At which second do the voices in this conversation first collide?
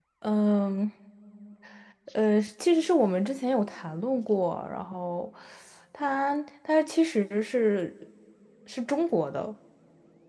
none

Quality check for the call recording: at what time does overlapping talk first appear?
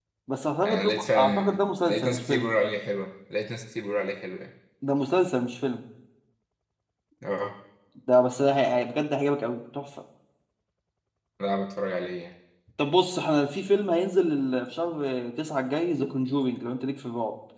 1 s

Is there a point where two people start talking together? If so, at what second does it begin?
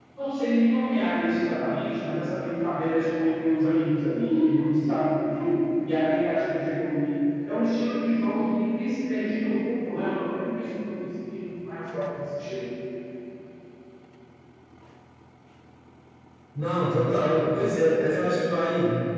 none

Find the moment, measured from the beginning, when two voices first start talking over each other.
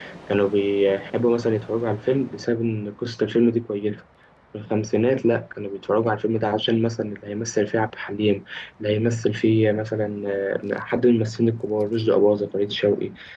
none

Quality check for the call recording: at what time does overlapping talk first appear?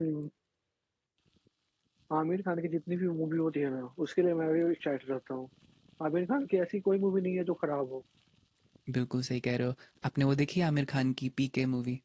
none

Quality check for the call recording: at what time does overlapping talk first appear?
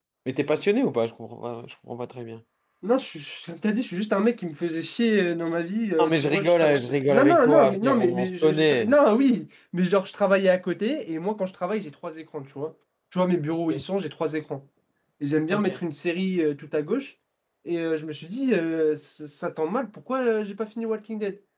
6 s

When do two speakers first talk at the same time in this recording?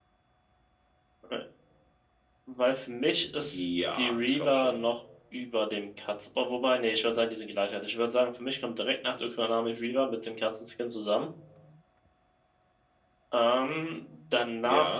4 s

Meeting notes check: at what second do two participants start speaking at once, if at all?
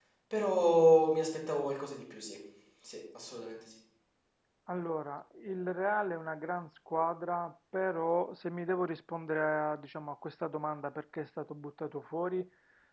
none

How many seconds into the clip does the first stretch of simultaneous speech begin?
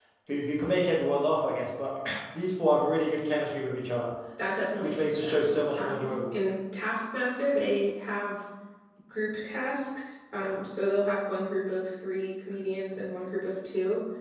5 s

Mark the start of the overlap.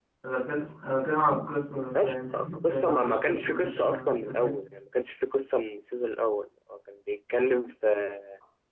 2 s

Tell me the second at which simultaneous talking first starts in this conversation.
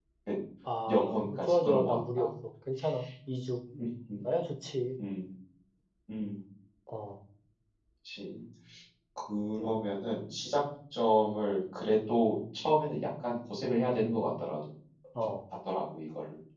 1 s

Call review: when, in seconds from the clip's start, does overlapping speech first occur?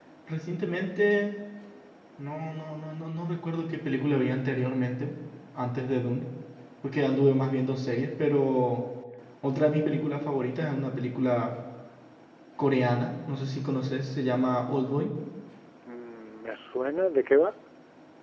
none

